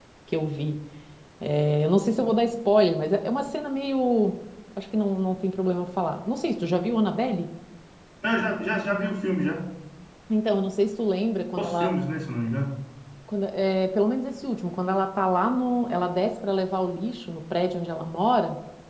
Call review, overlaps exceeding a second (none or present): none